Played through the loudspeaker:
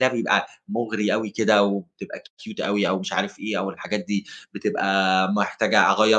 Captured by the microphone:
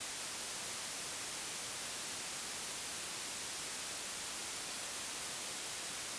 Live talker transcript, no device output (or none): none